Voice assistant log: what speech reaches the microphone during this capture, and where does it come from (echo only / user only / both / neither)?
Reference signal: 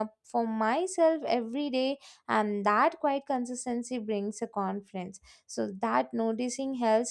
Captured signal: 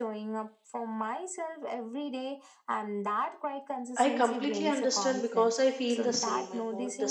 both